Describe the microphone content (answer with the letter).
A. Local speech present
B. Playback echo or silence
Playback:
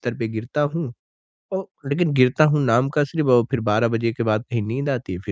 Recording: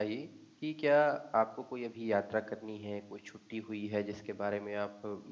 A